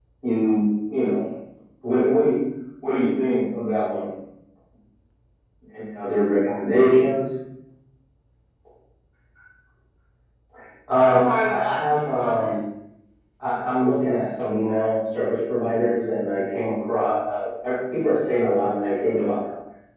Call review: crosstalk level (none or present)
present